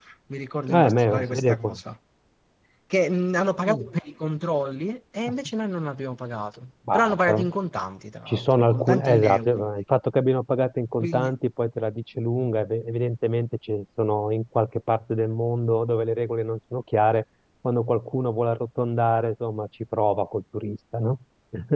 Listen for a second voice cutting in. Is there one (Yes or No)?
Yes